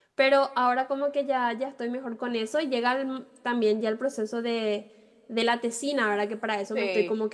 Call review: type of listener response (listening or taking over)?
listening